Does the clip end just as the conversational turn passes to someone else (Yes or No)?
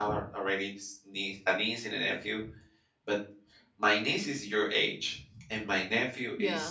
No